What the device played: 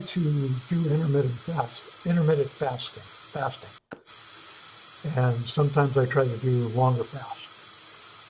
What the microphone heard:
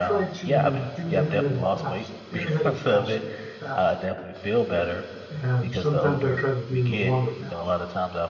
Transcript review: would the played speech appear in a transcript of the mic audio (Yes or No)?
Yes